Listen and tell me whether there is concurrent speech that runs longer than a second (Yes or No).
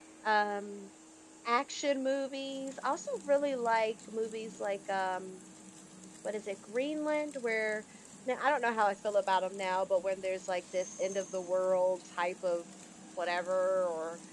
No